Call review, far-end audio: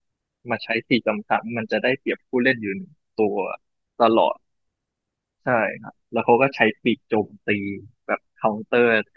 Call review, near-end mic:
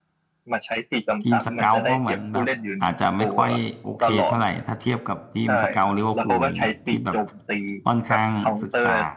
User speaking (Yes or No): Yes